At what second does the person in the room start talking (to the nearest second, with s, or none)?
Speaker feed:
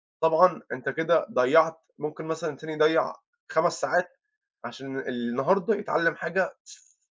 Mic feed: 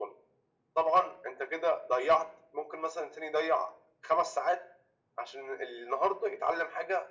none